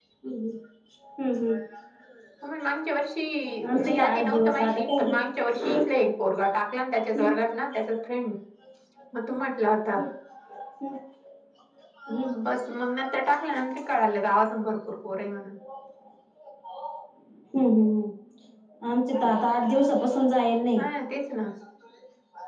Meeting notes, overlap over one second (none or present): present